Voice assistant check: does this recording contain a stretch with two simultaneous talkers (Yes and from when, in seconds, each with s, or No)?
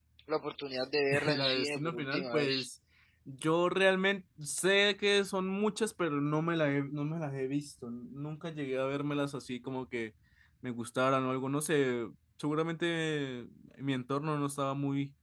Yes, from 1.2 s